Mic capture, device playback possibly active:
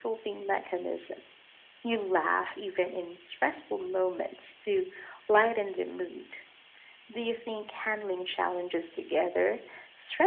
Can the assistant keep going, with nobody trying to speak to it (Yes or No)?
Yes